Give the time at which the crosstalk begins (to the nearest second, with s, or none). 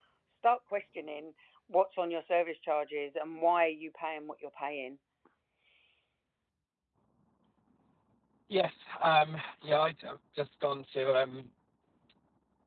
none